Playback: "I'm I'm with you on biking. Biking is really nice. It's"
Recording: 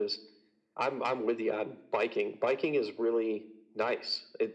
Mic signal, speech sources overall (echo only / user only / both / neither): echo only